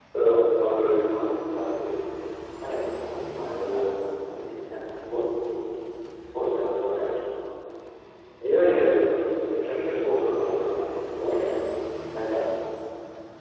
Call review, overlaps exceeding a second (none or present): none